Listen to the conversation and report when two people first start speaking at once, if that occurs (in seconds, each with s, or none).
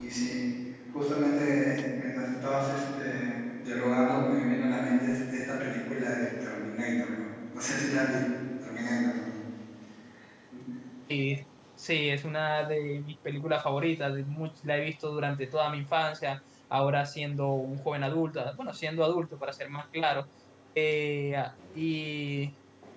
none